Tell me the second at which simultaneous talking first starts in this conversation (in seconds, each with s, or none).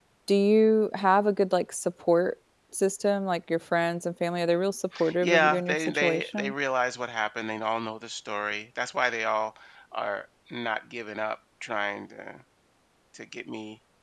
5.2 s